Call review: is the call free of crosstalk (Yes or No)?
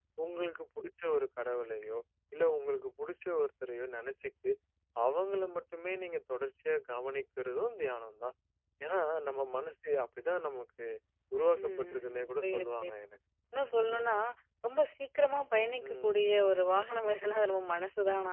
No